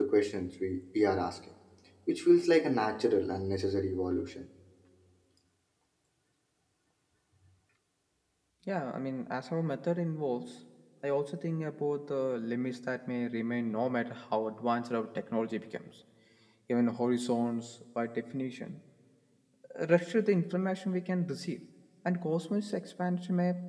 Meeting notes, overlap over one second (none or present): none